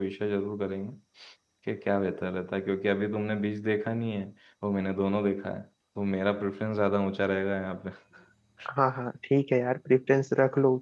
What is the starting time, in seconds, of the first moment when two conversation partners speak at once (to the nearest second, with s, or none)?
none